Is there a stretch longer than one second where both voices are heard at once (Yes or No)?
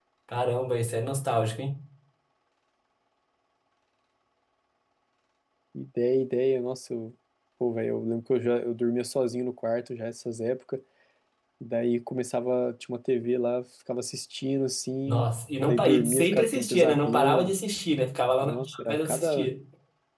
Yes